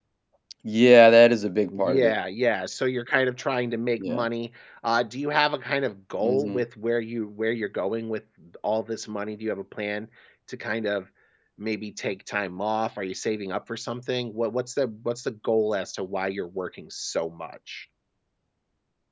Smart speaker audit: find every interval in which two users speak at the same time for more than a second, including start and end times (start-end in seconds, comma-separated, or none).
none